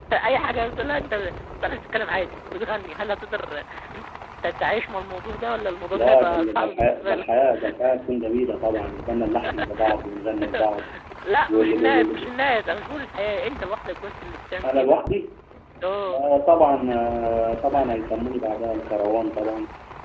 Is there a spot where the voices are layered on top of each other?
Yes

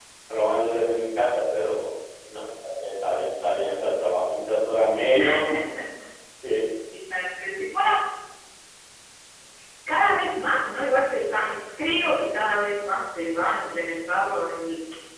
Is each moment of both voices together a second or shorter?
Yes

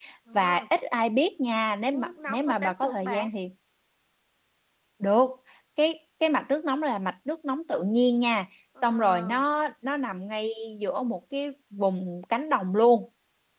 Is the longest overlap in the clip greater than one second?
Yes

